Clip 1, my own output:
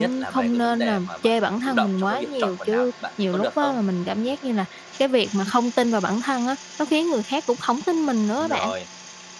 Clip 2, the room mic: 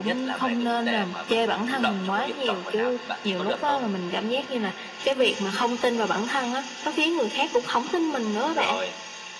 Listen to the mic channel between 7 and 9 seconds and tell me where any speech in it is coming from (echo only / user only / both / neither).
echo only